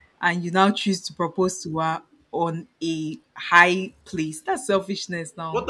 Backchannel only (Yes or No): No